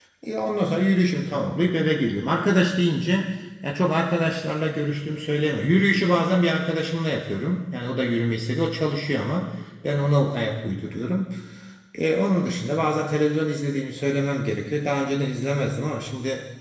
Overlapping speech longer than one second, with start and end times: none

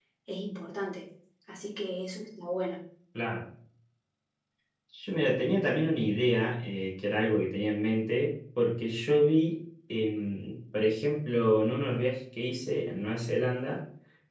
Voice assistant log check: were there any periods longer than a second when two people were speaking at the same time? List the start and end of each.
none

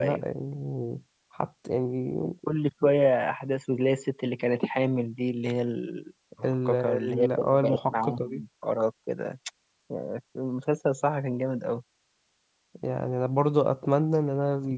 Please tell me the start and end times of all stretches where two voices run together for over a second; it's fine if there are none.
6.4-8.4

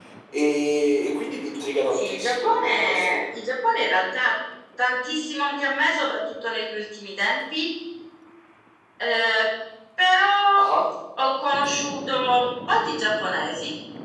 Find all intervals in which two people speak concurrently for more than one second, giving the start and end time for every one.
1.9-3.2

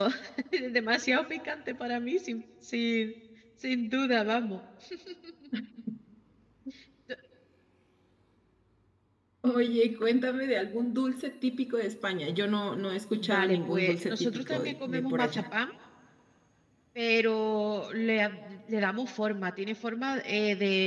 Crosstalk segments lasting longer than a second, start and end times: 13.2-15.4

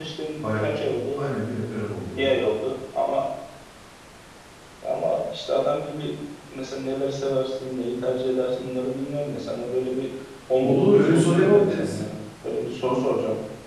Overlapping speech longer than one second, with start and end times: 10.6-12.0

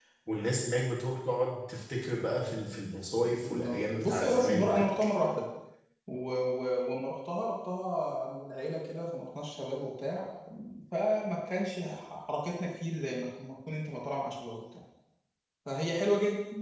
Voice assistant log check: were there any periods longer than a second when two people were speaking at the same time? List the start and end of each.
3.2-4.9

